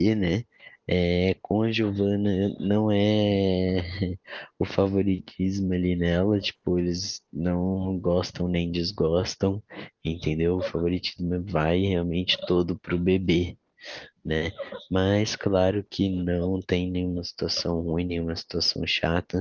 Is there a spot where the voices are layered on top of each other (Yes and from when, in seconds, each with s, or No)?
No